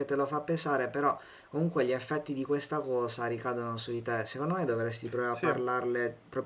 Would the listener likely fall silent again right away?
Yes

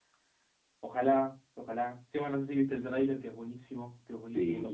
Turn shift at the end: Yes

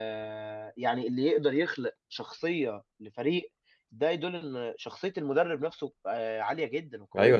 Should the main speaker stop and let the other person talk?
Yes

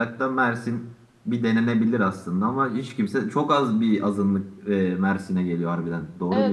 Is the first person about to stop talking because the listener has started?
Yes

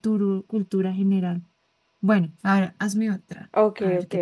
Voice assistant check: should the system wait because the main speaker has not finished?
No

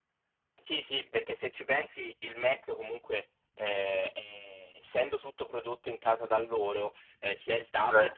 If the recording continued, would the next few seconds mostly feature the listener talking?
No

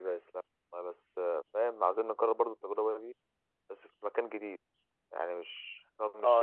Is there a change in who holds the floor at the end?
Yes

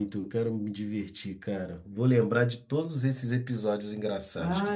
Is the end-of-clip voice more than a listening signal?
Yes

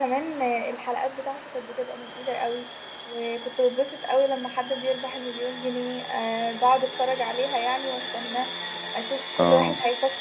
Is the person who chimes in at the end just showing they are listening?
Yes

